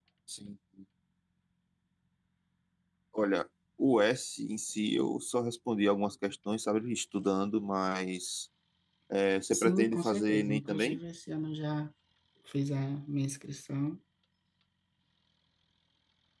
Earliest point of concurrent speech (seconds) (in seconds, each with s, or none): 9.5 s